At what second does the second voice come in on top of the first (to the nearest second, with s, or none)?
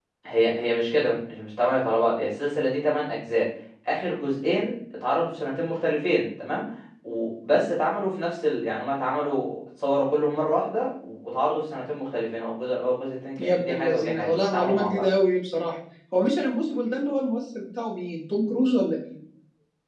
13 s